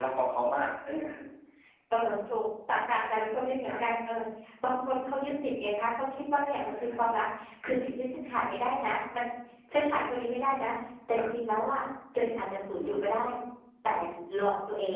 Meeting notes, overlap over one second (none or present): none